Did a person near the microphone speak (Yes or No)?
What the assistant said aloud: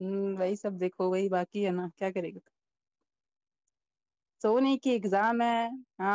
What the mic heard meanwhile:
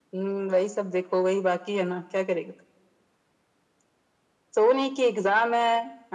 No